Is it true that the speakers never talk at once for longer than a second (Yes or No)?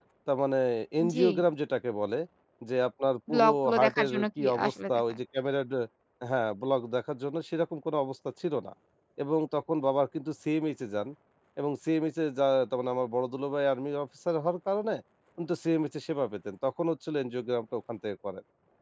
No